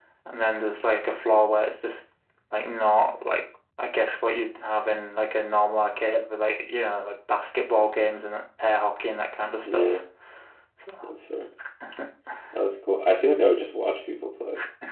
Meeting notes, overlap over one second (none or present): none